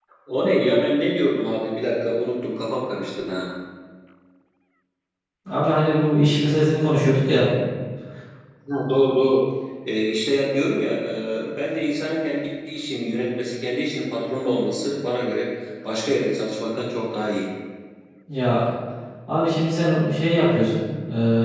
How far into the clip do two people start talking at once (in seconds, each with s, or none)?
none